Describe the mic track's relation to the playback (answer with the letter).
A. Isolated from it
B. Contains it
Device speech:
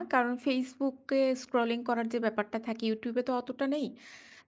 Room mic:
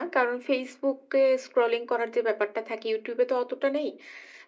B